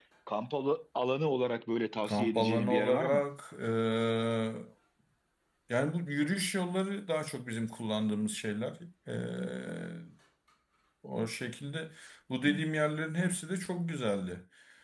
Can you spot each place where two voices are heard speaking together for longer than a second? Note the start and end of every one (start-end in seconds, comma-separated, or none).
2.0-3.2